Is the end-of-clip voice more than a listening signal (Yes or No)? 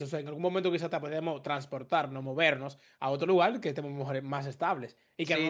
Yes